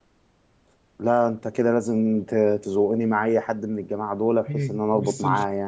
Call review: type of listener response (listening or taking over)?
taking over